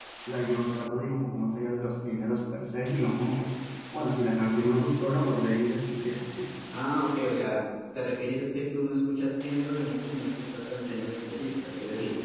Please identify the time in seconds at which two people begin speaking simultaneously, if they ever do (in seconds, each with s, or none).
none